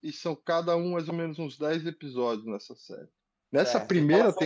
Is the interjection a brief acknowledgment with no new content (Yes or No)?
No